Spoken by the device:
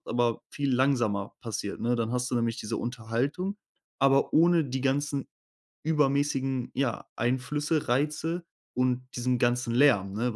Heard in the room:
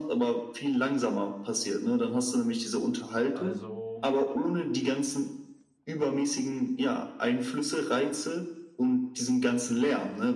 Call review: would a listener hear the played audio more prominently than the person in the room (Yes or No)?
Yes